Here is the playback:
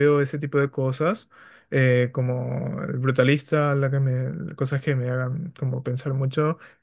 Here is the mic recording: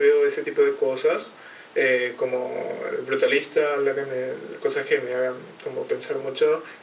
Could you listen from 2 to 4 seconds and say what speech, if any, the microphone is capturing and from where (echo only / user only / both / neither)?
echo only